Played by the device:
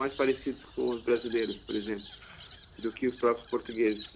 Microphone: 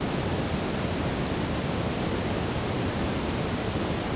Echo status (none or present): none